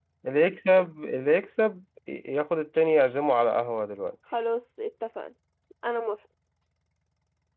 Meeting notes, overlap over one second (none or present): none